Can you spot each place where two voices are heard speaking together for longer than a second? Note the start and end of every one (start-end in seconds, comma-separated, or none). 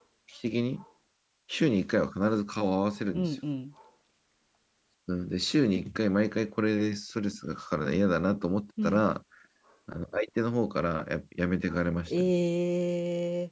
none